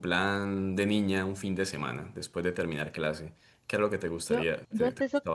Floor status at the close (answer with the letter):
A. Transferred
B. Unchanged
A